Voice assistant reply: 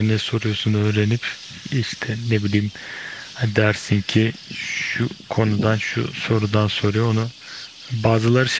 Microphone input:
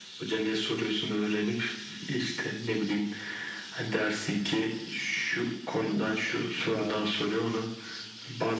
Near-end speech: present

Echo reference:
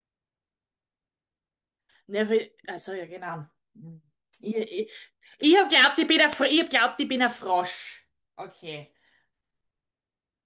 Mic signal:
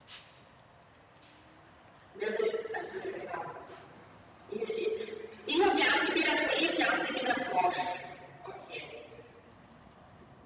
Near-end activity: none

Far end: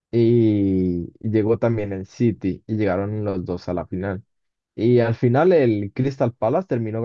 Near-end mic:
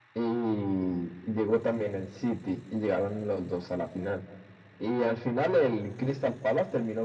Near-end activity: none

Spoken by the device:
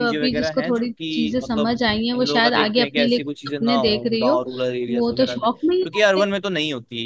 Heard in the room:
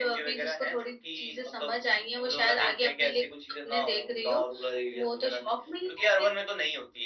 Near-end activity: none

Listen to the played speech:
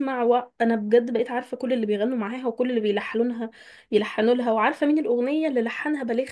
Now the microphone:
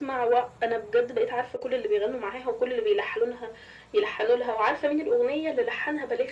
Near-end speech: none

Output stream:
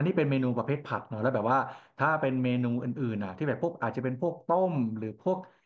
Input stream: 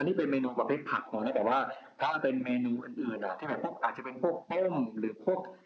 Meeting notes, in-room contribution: none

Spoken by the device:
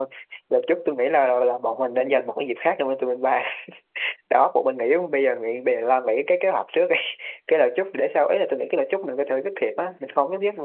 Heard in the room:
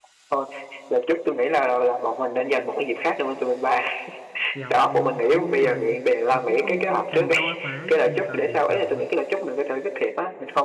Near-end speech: present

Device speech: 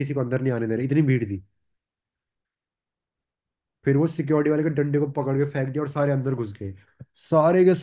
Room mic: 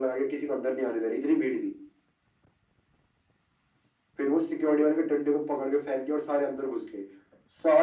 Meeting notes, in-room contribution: none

